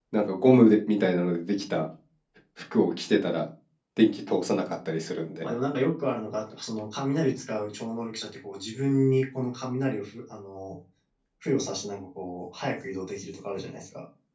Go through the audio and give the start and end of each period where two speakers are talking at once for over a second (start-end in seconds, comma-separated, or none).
none